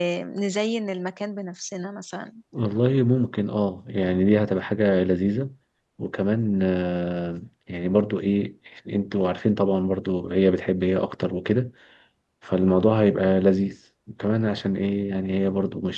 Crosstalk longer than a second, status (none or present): none